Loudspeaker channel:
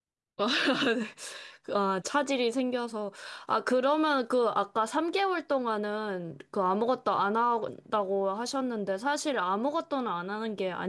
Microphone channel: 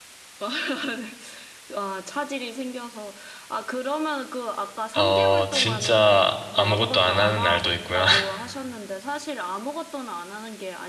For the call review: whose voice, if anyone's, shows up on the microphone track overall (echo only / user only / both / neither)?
both